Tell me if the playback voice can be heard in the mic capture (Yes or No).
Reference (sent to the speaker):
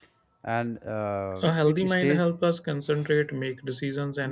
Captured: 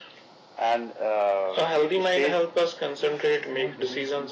Yes